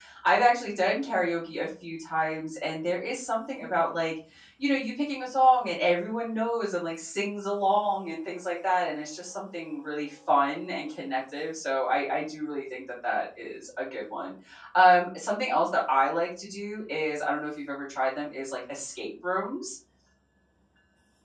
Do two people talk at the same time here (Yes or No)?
No